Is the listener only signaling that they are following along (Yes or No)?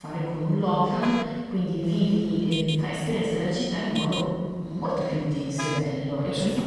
No